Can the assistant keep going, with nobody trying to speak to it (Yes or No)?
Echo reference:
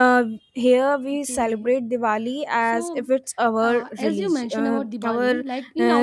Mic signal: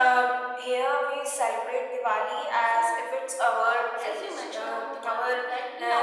Yes